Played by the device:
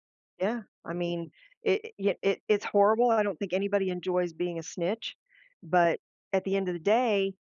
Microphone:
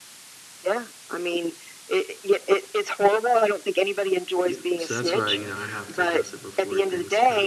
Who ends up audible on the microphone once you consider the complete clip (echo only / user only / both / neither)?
both